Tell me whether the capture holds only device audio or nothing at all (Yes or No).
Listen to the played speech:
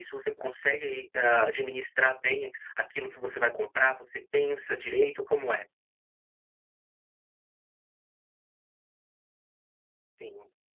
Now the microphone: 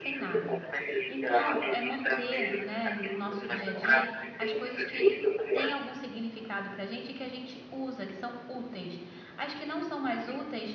No